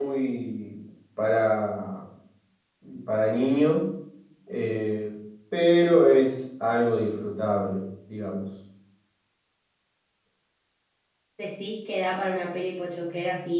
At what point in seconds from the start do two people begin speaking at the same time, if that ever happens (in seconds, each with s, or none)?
none